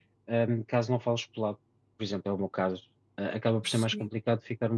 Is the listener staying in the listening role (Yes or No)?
Yes